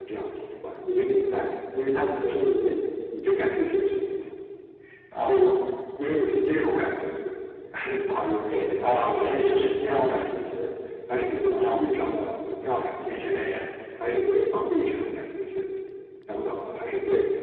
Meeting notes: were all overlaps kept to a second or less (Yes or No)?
No